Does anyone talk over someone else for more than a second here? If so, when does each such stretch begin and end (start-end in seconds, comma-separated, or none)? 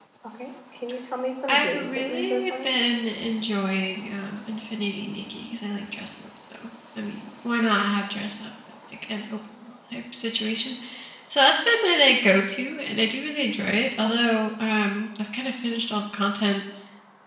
1.5-2.7